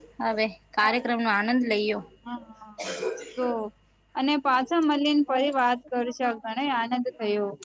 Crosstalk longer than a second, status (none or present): none